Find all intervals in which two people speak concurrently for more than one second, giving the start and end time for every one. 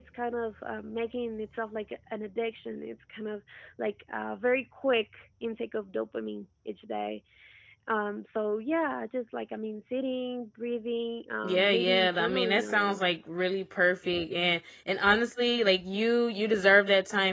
11.4-13.1

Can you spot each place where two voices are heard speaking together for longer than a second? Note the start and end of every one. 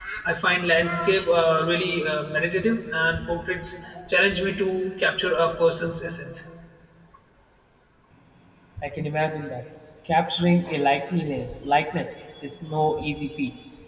none

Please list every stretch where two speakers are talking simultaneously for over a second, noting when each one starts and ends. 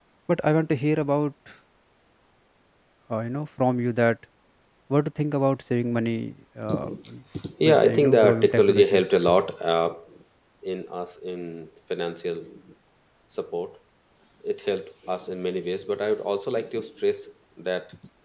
7.6-9.0

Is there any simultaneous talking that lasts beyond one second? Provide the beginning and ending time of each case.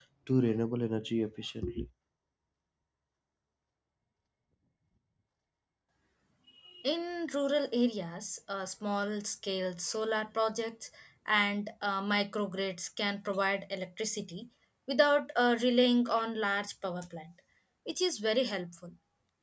none

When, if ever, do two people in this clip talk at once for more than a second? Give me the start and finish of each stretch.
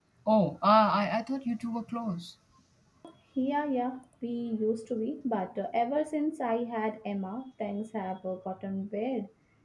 none

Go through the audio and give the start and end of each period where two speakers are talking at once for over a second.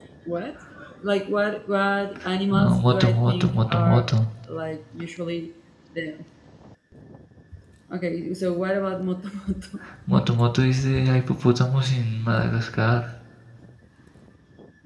2.6-4.1

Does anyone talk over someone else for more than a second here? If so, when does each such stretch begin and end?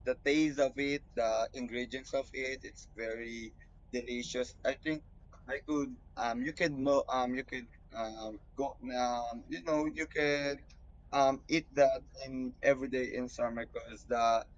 none

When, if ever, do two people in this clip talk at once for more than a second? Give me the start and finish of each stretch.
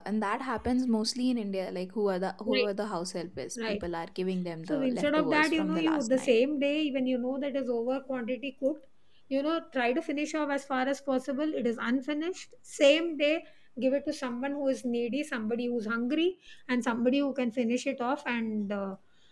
4.7-6.3

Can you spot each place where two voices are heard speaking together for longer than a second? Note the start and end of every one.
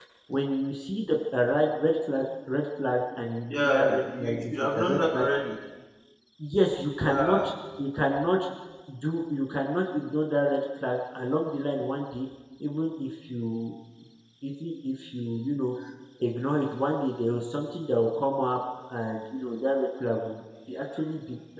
3.5-5.2

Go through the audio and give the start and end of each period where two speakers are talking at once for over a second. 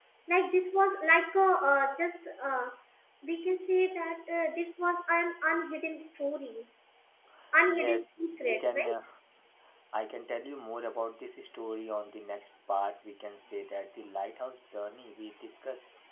7.7-8.9

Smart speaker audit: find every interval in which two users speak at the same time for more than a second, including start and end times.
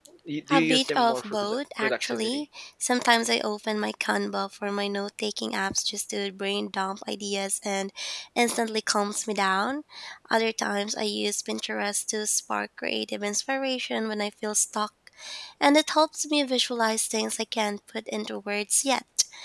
0.5-2.4

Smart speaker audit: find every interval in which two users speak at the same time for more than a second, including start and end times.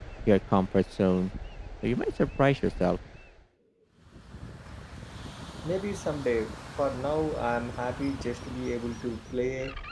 none

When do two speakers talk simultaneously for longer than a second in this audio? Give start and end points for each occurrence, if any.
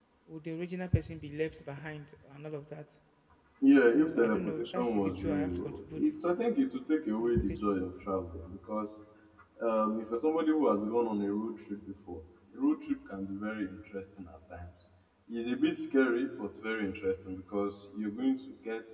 3.9-6.0

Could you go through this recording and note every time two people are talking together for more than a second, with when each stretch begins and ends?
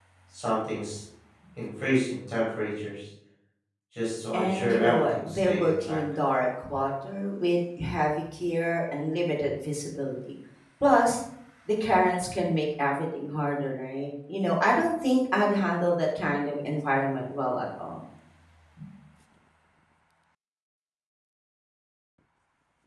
4.3-6.0

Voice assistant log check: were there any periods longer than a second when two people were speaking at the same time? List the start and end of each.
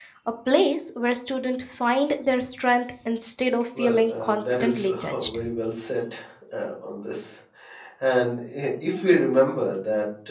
3.8-5.4

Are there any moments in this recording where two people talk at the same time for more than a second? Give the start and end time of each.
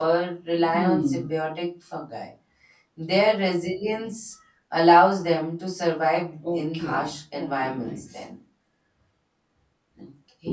6.5-8.0

